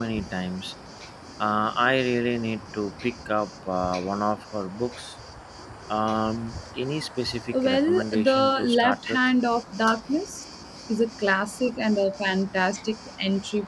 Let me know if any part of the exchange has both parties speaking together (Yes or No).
Yes